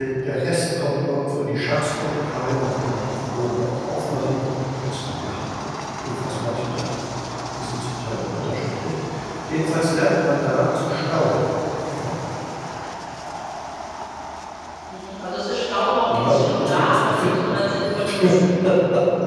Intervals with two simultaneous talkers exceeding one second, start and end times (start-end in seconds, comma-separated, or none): 16.0-18.2